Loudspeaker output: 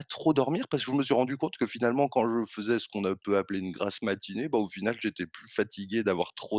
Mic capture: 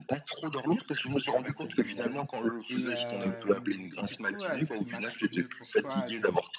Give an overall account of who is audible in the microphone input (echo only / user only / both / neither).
both